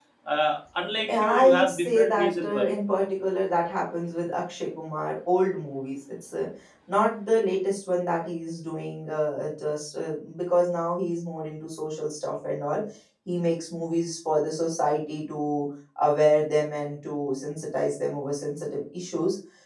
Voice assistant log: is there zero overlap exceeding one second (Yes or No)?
No